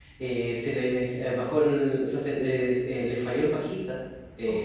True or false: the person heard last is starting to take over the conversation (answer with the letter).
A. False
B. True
A